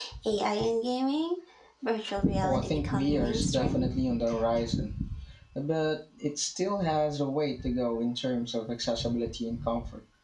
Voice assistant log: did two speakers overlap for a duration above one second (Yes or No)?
Yes